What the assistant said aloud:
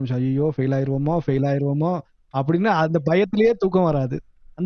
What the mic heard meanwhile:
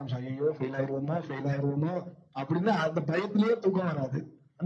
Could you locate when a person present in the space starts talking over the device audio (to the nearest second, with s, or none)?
none